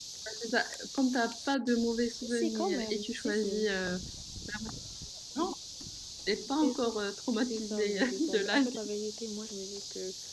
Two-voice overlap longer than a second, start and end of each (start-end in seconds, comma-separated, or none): 2.2-3.6, 7.4-8.9